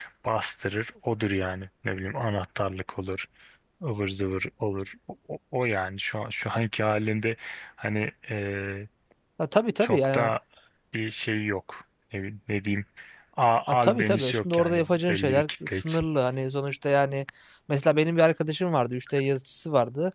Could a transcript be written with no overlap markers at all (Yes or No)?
No